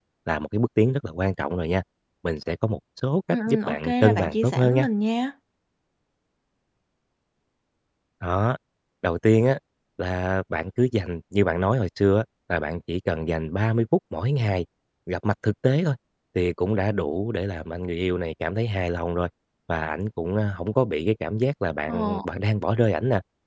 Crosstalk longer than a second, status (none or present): present